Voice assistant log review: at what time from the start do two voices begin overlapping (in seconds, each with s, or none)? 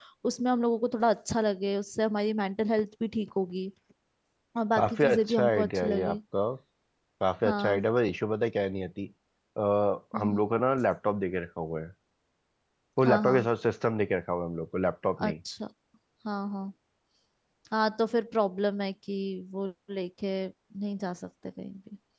4.8 s